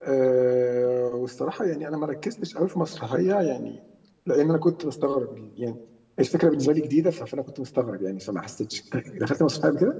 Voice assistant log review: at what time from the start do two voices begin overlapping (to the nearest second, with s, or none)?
none